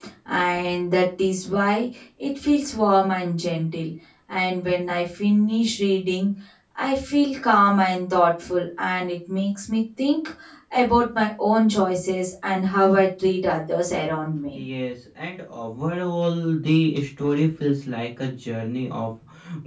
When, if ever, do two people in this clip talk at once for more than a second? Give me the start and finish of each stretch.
none

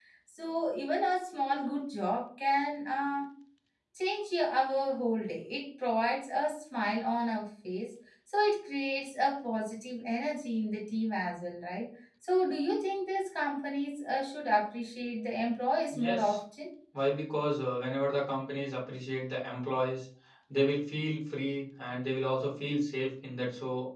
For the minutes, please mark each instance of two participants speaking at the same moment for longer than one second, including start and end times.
none

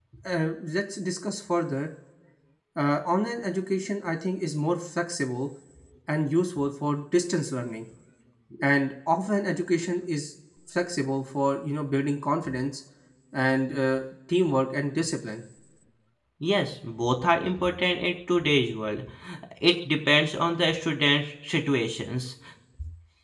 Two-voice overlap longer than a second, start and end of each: none

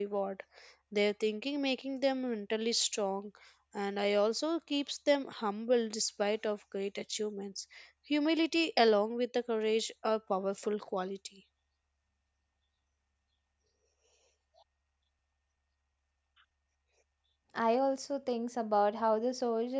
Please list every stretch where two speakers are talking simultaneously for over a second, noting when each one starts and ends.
none

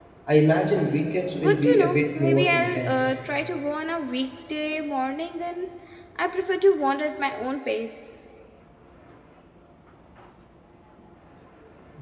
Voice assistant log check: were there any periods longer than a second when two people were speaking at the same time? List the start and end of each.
1.4-3.0

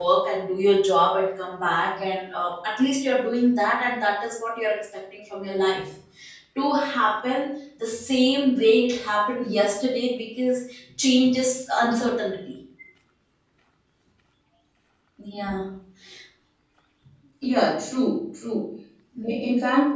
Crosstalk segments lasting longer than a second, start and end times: none

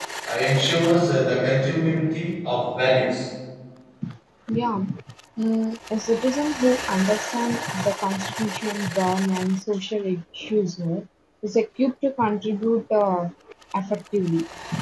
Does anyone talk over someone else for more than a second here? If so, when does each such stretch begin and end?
none

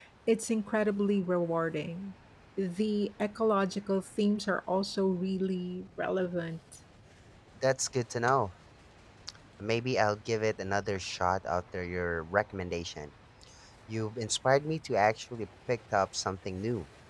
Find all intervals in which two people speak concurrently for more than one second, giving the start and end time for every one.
none

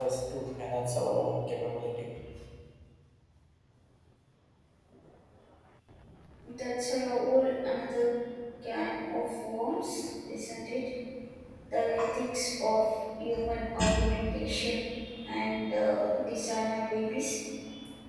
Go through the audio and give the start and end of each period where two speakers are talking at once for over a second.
none

